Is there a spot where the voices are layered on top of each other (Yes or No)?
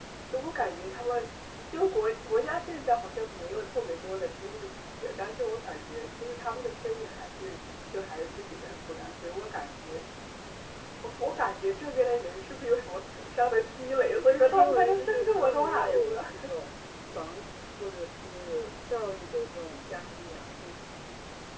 Yes